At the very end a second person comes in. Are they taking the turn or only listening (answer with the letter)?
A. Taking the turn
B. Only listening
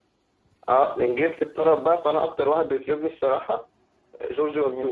A